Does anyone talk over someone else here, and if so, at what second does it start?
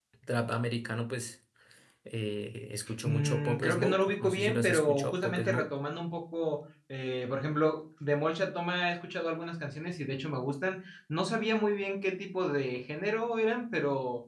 3.0 s

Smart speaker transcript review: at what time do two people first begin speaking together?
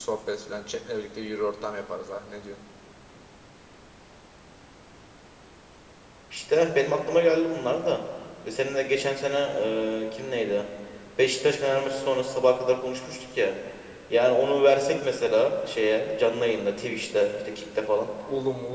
none

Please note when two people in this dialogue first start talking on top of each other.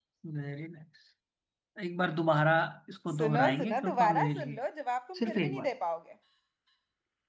3.1 s

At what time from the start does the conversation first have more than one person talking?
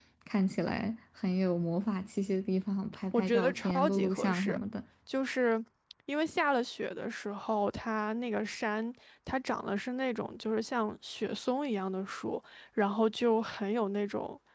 3.1 s

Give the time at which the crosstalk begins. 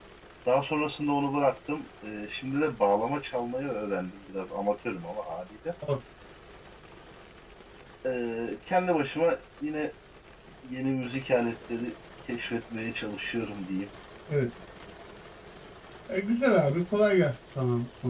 none

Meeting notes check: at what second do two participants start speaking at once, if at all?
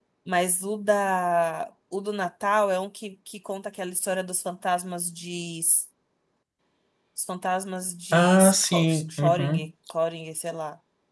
8.1 s

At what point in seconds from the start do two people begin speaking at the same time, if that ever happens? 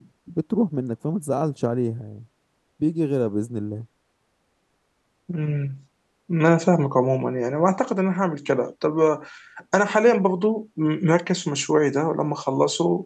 none

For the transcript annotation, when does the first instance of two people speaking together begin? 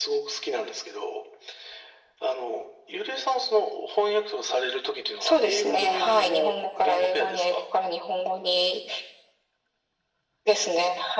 5.2 s

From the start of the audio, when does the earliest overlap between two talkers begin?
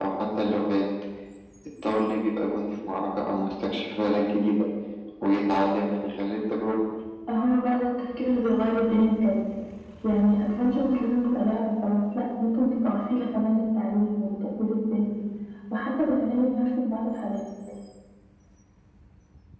none

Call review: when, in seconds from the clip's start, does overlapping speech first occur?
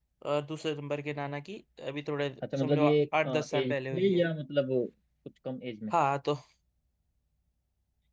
2.4 s

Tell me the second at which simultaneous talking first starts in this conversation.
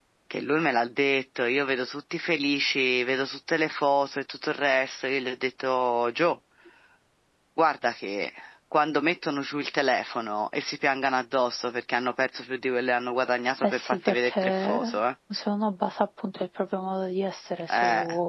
13.6 s

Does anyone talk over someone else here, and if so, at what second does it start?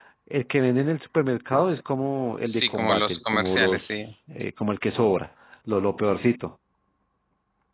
2.4 s

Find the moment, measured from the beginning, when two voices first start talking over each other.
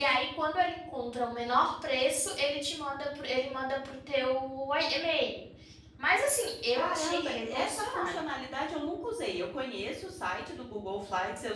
6.8 s

